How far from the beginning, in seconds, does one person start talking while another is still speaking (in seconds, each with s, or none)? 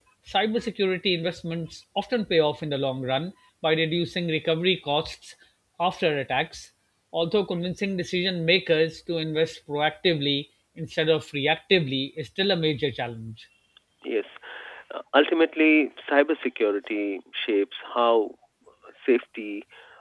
none